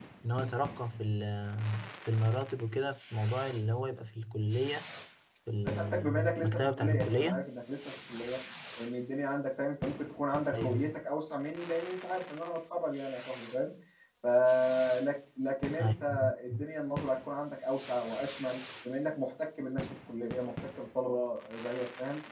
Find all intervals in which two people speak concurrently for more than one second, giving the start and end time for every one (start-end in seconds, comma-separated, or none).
5.7-7.5